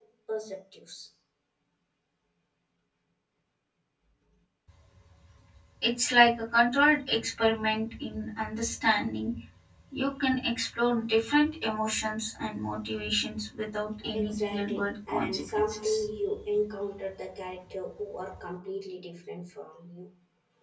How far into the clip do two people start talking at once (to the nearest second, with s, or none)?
14 s